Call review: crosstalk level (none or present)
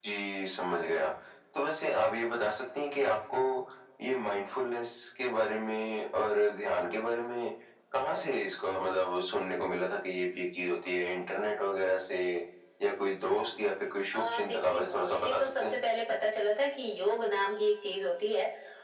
present